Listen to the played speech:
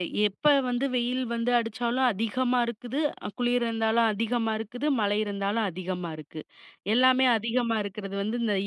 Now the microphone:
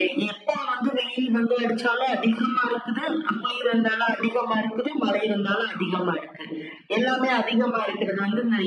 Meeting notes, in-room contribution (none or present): none